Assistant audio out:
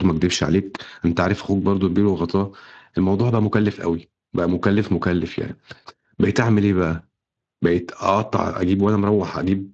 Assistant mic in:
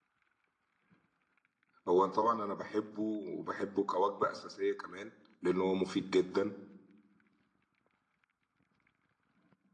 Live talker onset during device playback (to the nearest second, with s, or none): 2 s